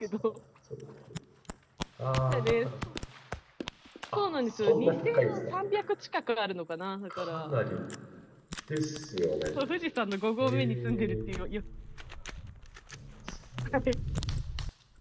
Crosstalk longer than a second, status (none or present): present